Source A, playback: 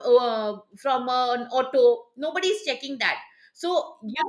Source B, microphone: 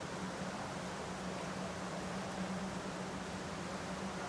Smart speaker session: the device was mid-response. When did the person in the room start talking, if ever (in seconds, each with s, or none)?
none